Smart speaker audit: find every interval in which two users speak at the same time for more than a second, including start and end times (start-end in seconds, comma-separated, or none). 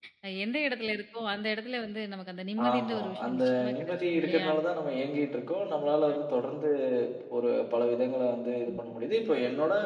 2.7-4.5